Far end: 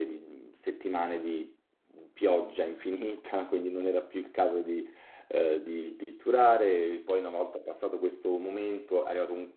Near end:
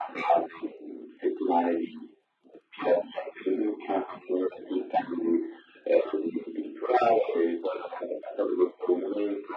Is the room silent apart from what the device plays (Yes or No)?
Yes